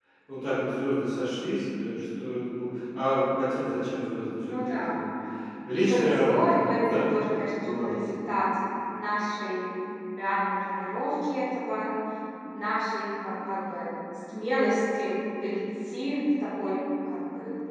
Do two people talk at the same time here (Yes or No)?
Yes